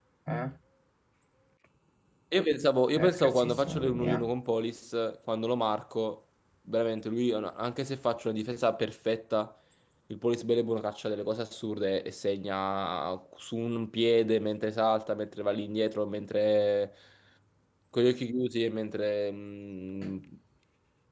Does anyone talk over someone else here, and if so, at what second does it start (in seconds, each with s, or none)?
3.0 s